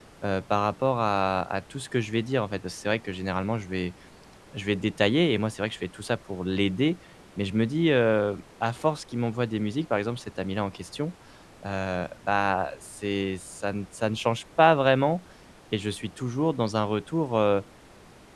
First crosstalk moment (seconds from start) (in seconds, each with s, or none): none